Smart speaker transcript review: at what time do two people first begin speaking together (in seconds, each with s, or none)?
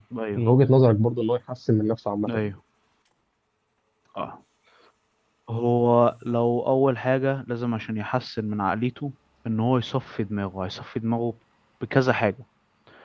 none